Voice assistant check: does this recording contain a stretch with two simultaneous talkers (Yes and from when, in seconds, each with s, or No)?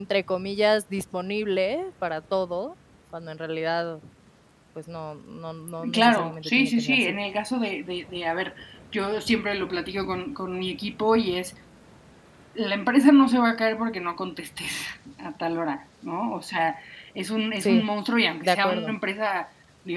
Yes, from 5.9 s